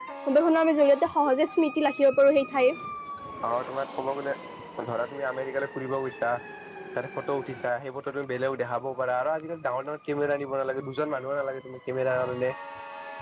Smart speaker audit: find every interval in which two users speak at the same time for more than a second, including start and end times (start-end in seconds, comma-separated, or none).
none